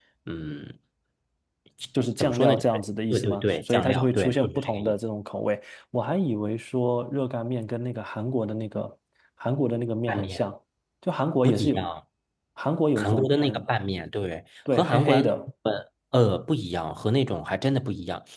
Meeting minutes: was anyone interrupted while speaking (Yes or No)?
Yes